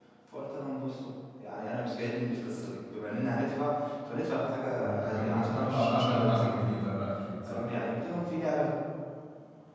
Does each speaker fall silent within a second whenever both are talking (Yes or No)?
No